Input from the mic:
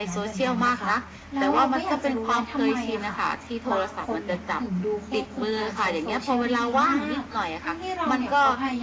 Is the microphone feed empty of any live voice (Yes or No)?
No